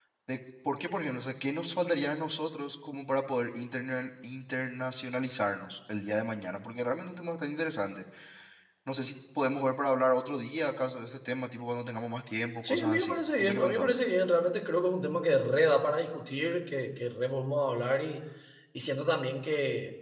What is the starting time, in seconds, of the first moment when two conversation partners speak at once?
13 s

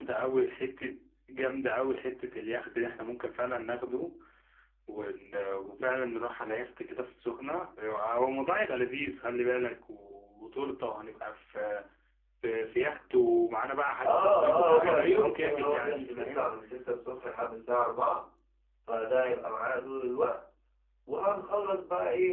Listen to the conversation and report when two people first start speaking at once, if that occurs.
14 s

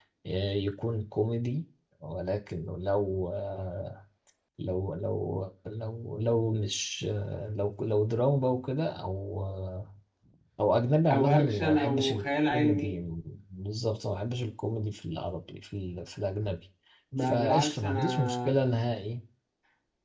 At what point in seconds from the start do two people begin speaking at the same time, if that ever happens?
11 s

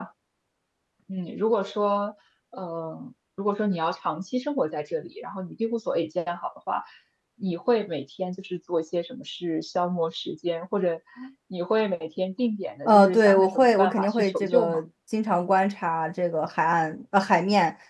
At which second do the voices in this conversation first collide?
13 s

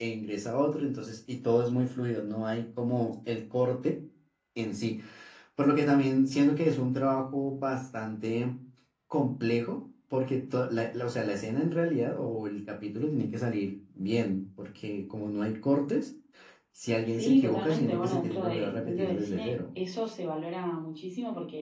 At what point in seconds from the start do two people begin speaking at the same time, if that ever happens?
17 s

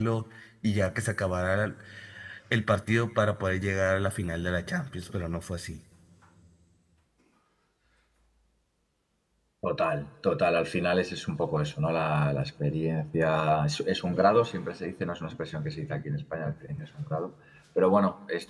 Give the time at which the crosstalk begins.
none

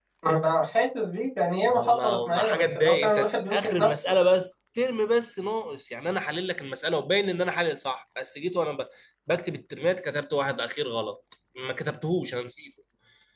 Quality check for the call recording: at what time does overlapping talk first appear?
2 s

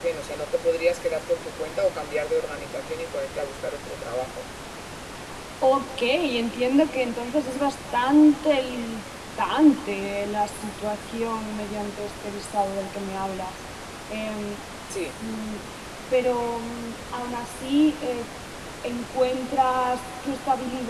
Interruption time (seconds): none

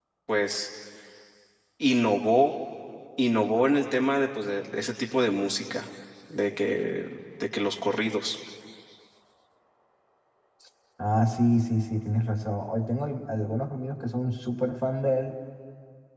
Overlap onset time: none

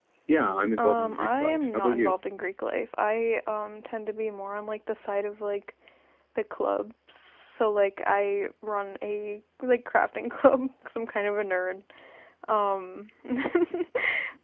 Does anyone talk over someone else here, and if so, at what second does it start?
1 s

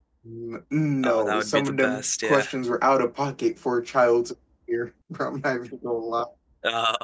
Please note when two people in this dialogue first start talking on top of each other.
1 s

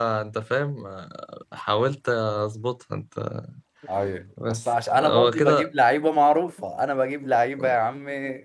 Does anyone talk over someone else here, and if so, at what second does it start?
4 s

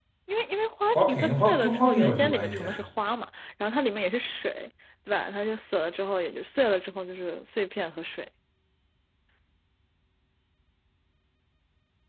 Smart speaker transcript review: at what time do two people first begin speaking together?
1 s

